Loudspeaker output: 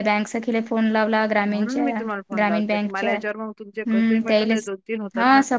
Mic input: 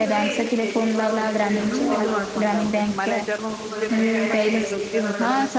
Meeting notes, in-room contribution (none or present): present